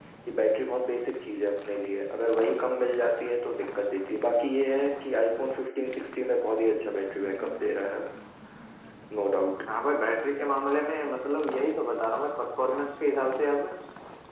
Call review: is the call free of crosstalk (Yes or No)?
Yes